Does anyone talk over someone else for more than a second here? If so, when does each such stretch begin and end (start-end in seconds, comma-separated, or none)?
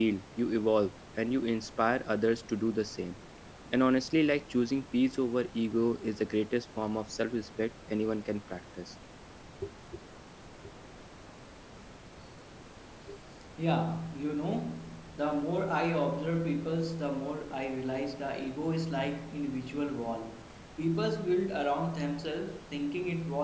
none